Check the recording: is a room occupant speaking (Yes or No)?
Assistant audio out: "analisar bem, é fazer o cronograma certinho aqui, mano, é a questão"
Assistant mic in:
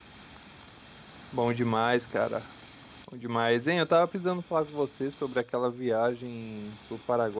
Yes